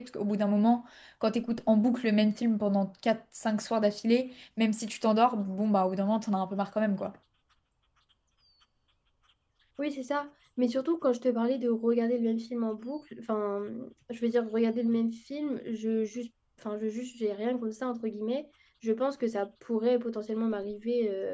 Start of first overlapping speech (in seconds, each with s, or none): none